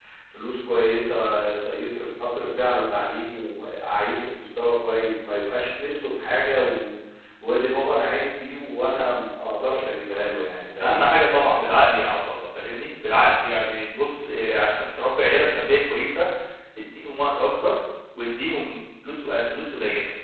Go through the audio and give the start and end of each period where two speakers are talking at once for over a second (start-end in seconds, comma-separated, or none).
none